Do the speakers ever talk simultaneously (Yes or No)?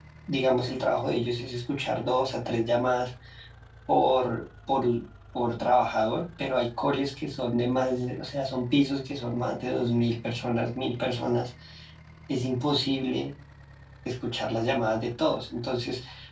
No